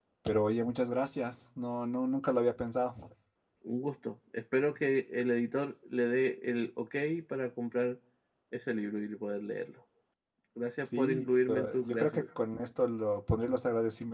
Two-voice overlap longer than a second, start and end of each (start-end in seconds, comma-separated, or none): 10.8-12.2